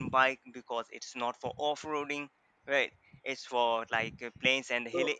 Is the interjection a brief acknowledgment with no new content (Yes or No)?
No